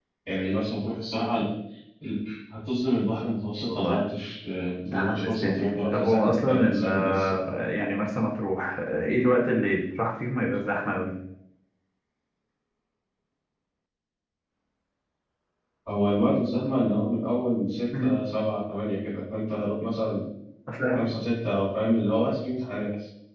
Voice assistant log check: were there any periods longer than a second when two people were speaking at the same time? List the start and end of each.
4.8-7.5

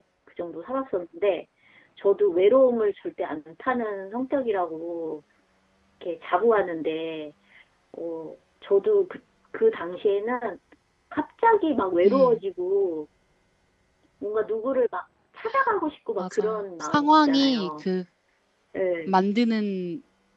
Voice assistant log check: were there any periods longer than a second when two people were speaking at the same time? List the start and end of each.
16.2-17.7

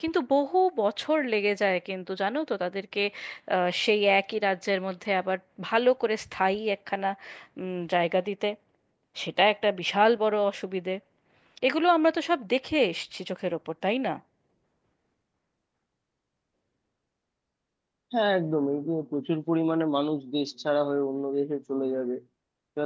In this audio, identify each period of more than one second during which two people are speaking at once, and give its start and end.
none

